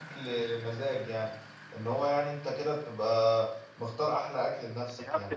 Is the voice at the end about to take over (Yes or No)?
Yes